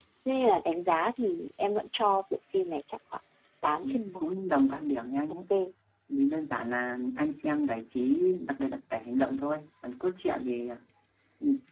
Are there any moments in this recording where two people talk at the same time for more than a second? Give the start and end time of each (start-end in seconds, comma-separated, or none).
none